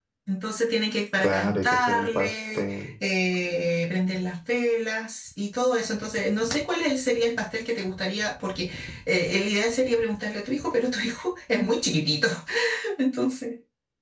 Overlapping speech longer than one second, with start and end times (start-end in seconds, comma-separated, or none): 1.2-2.9